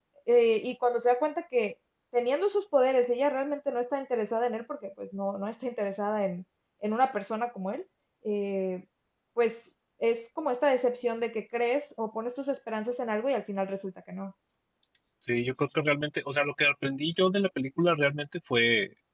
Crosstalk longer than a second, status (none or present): none